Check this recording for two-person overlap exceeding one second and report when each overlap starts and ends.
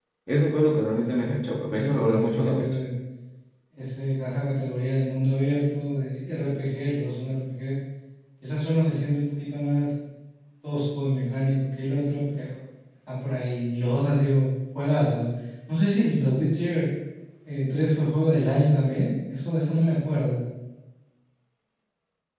0.7-2.7

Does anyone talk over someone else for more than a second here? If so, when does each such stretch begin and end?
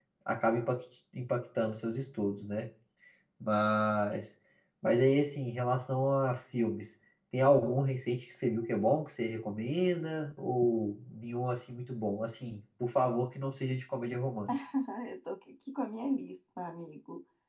none

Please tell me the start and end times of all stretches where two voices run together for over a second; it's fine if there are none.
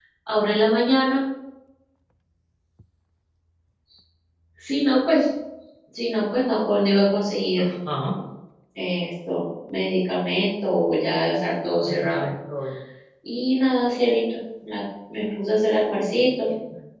none

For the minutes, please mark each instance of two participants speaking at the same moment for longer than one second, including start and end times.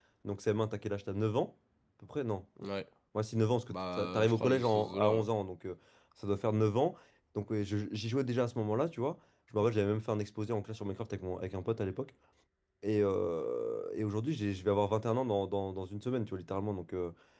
3.7-5.3

